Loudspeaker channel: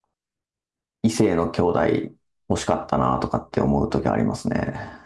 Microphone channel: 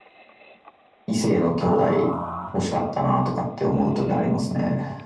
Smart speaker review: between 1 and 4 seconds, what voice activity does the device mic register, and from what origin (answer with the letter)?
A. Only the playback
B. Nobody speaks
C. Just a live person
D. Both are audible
D